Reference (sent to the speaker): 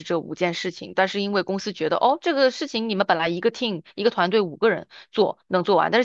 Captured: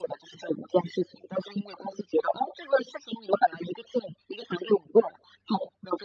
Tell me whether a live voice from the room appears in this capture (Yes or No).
No